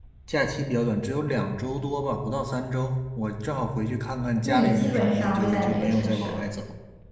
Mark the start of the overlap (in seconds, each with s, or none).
4.5 s